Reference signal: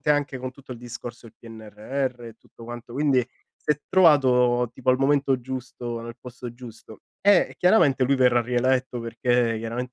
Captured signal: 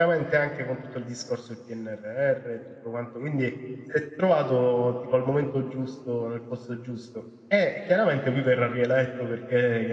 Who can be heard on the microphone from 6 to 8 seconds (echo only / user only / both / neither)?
echo only